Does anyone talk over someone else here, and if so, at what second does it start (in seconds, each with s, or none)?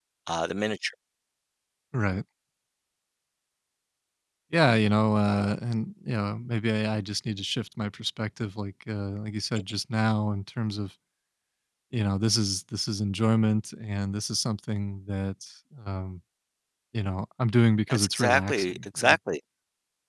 17.9 s